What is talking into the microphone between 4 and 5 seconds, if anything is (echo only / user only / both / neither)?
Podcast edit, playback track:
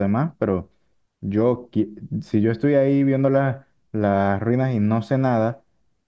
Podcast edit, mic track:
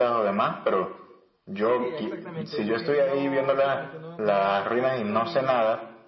both